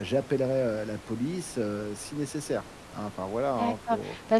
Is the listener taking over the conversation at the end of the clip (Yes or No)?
Yes